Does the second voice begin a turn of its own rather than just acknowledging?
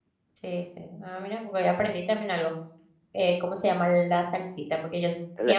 No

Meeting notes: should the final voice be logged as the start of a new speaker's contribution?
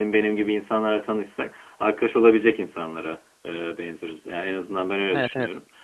No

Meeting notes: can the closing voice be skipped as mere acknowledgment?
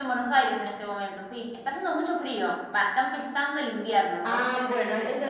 No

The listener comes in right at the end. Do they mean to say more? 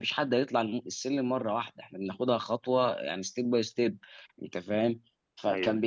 No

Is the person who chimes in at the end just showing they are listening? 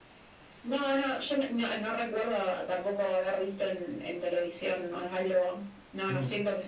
Yes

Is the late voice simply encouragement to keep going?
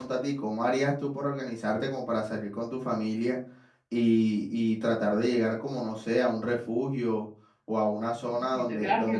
No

